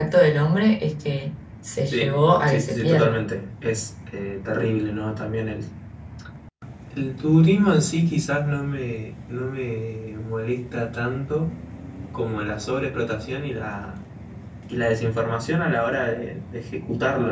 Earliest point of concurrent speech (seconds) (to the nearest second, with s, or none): 2 s